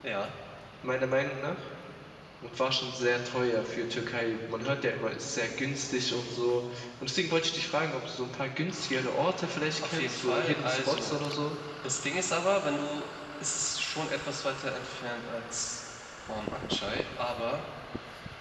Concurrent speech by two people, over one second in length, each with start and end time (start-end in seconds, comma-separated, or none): 9.8-11.2